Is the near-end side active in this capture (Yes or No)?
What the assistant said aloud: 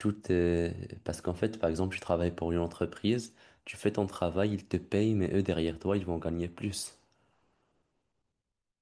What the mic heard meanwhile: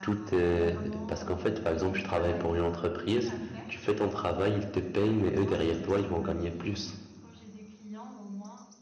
Yes